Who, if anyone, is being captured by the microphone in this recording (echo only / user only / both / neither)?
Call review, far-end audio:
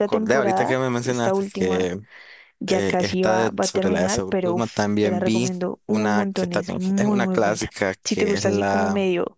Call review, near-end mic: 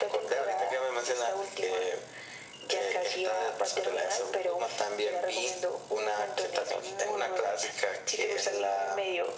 echo only